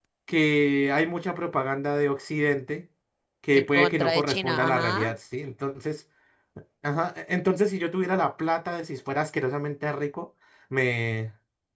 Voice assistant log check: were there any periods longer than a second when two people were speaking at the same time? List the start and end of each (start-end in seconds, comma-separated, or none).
3.5-5.1